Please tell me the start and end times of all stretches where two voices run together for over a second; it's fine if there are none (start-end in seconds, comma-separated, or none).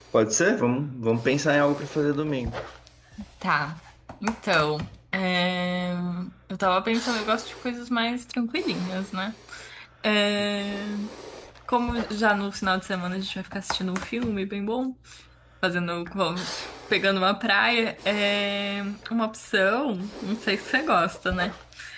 none